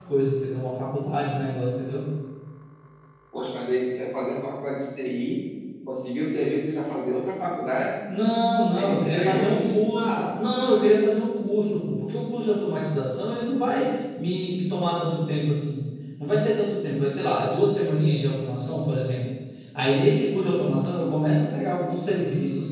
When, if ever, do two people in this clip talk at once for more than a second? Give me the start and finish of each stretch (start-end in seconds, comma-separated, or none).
8.7-10.3